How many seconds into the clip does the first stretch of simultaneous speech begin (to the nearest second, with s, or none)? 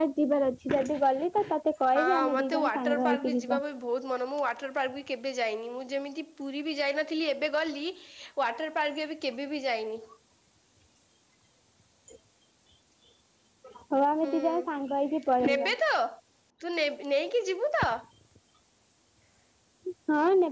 2 s